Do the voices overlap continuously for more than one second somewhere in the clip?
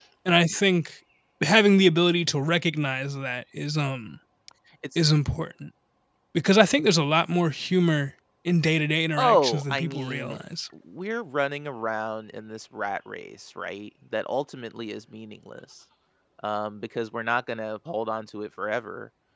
Yes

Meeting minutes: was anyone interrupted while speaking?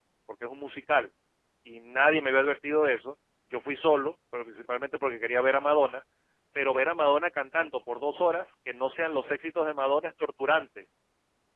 No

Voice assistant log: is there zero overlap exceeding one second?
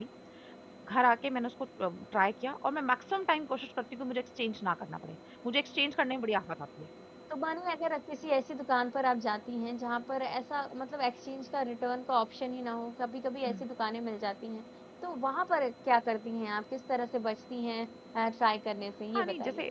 Yes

